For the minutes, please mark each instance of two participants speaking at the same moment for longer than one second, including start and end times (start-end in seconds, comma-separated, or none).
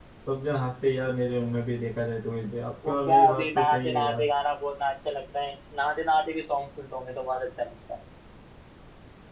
2.9-4.3